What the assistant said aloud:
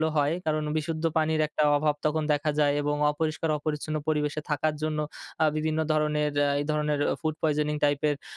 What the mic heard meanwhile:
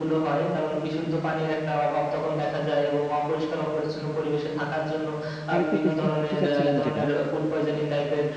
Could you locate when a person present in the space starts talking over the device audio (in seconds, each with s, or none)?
5.5 s